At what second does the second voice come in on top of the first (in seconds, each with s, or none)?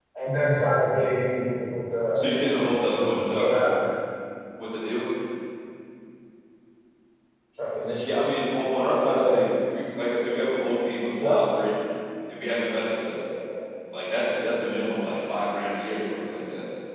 2.1 s